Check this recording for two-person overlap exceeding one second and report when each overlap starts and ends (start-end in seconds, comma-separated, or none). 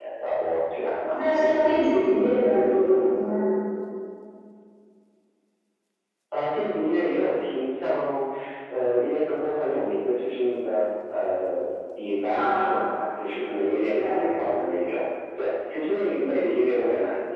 none